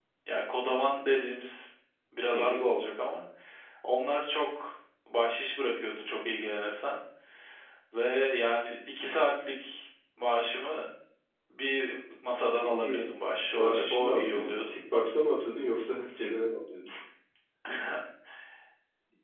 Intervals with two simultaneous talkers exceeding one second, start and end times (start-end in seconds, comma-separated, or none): 13.6-14.8